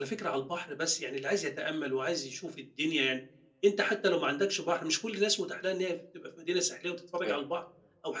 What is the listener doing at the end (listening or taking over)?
listening